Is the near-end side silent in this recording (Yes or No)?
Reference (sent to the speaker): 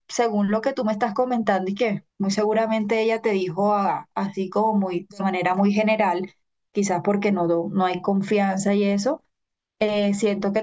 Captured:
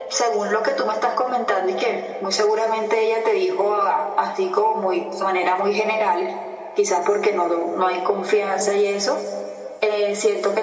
Yes